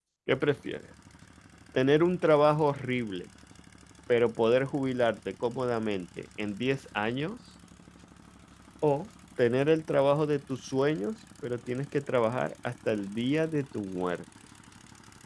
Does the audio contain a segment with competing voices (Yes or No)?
No